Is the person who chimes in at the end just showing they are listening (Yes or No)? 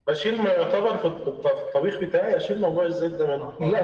No